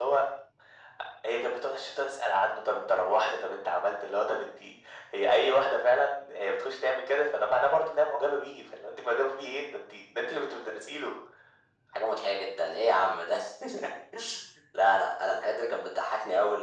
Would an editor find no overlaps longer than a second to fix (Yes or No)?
Yes